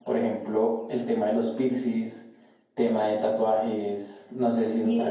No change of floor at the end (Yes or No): No